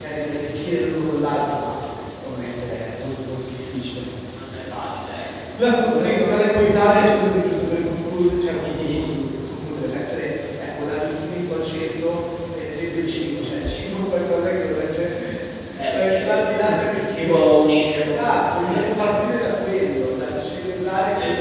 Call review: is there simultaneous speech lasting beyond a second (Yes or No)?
Yes